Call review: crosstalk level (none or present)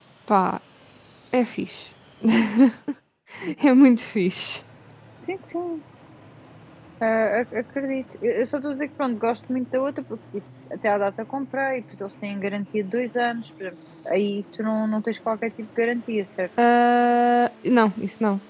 none